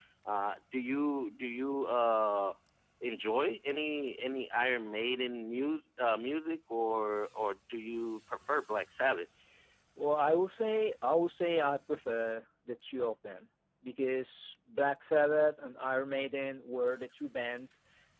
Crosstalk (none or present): none